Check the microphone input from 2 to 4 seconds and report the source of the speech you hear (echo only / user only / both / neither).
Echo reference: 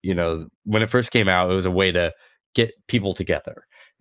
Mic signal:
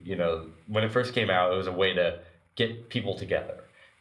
echo only